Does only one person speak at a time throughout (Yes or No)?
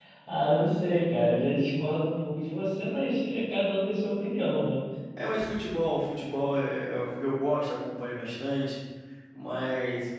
Yes